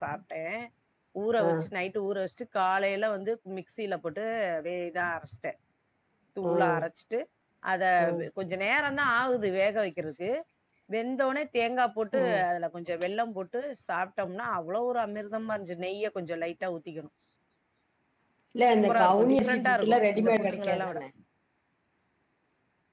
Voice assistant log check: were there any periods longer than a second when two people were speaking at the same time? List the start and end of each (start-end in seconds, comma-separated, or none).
18.9-21.0